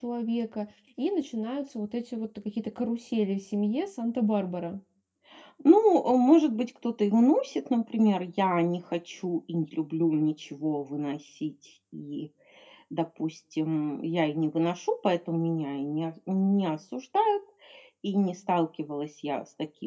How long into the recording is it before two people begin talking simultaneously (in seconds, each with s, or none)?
none